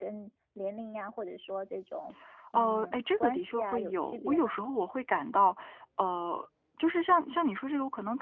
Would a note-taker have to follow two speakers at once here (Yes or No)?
Yes